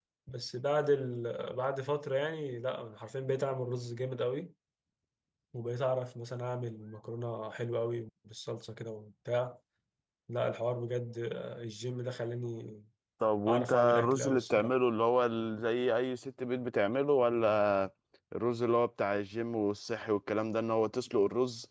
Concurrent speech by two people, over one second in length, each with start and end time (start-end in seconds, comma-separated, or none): 13.5-14.7